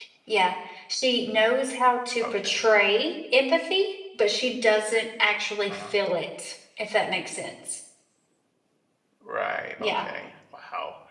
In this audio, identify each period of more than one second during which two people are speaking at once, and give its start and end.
none

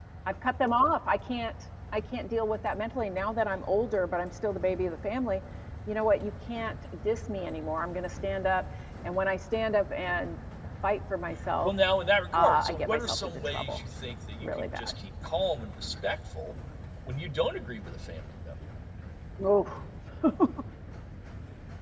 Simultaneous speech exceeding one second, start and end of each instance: 12.3-13.8

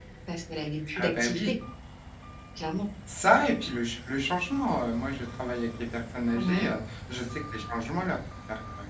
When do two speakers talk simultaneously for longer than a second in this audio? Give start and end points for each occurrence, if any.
none

